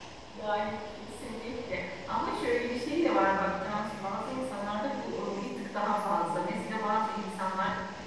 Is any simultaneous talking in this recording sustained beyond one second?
No

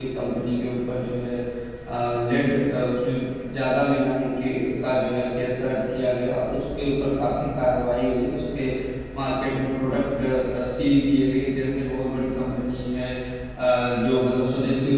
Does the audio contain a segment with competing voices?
No

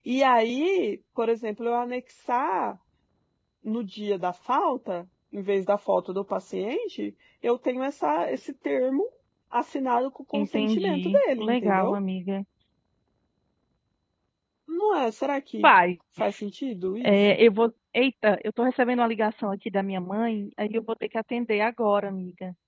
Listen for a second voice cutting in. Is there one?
Yes, from 10.3 s

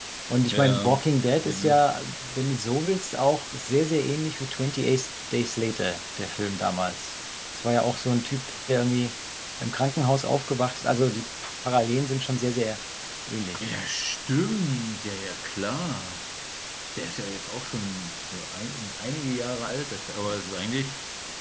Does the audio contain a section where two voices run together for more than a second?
No

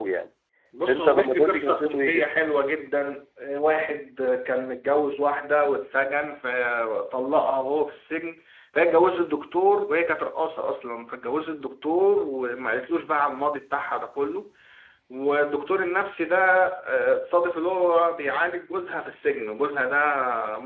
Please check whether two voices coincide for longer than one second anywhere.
Yes, from 0.9 s

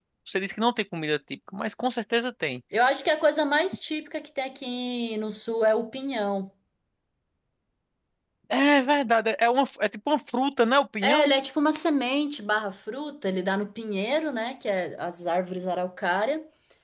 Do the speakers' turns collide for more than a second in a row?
No

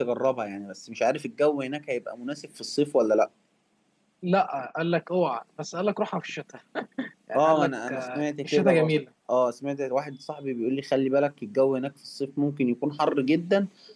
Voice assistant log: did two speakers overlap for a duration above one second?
Yes, from 7.3 s

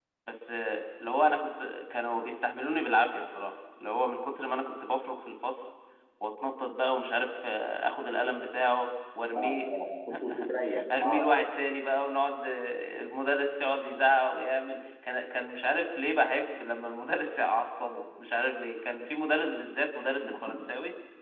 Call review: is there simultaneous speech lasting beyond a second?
No

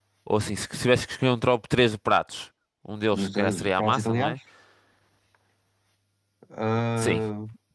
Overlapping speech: Yes, from 3.1 s

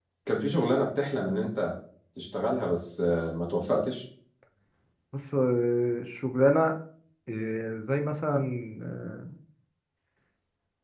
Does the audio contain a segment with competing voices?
No

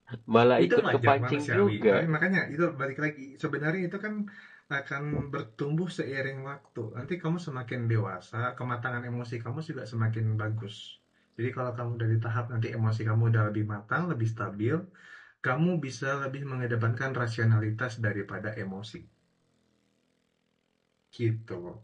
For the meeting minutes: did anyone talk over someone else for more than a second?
Yes, from 0.6 s

